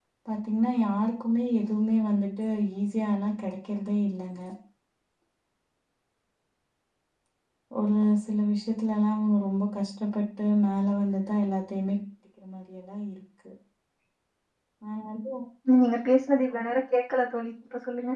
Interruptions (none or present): none